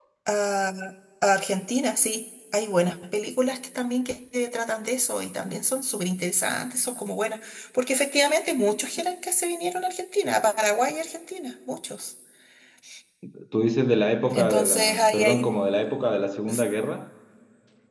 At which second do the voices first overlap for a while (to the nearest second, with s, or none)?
14 s